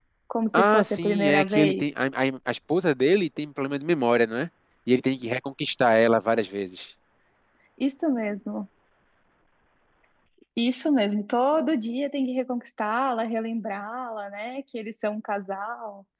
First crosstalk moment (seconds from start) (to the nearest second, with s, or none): 1 s